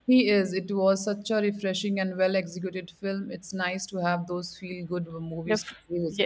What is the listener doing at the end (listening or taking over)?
taking over